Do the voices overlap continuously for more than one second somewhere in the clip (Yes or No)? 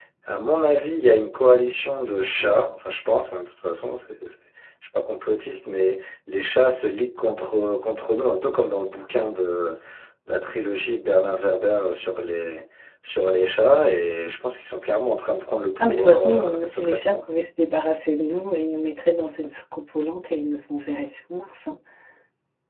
Yes